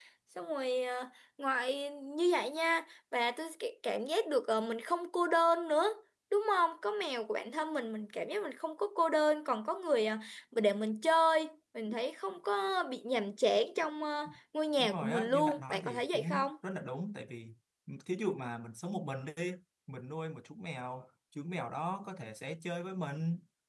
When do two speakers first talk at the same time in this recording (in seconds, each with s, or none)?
14.8 s